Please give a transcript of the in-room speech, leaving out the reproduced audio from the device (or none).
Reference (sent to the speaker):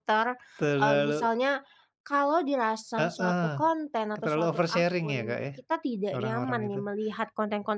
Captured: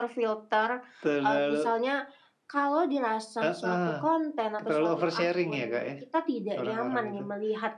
none